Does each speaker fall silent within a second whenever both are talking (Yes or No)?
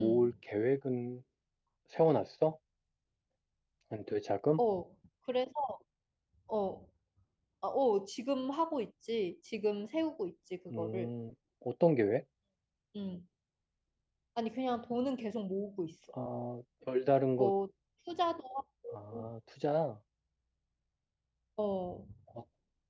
Yes